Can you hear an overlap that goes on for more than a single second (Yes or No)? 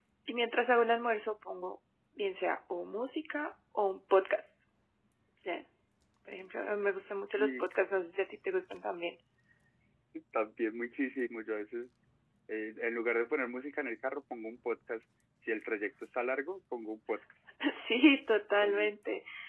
No